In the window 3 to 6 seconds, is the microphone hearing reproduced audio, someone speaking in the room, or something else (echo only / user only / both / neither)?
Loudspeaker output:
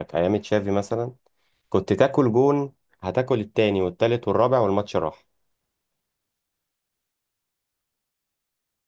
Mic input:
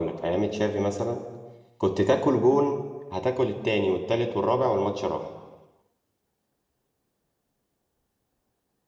echo only